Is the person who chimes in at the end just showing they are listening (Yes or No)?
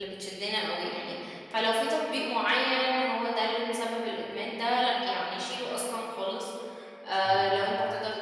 Yes